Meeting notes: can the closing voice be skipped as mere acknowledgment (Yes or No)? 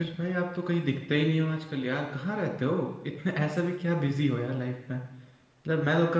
Yes